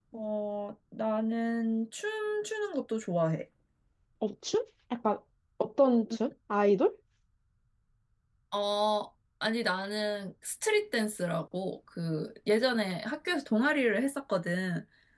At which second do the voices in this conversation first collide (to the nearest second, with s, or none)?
none